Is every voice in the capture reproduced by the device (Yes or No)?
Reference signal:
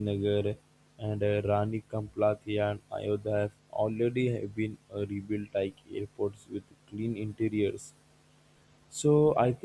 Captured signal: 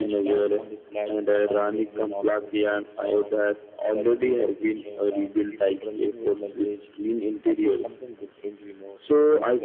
No